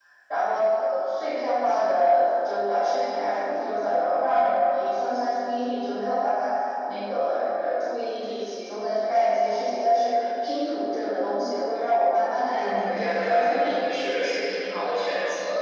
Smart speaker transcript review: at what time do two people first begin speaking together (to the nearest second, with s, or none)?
12 s